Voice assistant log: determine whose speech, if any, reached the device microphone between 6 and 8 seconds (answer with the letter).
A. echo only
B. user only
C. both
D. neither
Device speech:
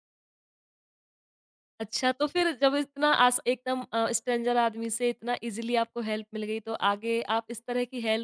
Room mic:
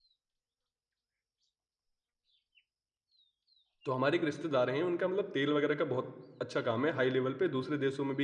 B